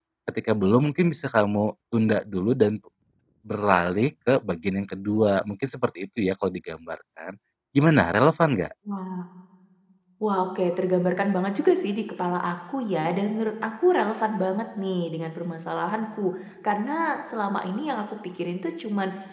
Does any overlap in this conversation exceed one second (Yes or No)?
No